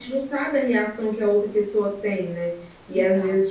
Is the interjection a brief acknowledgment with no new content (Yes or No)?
Yes